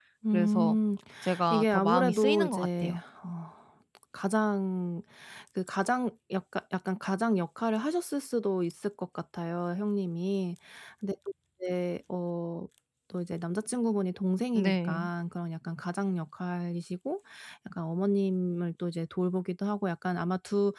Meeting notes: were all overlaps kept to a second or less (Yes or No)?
No